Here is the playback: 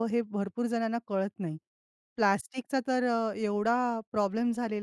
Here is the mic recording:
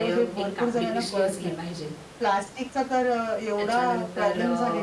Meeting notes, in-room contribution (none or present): present